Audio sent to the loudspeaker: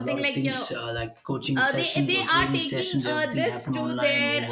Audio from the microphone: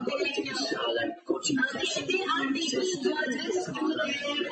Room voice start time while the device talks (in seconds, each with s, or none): none